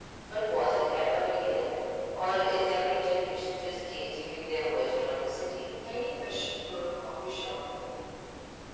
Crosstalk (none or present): none